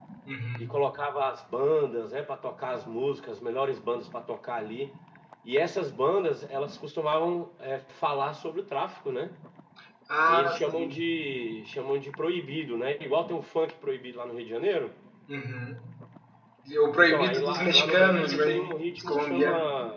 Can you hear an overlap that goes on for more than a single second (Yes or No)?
Yes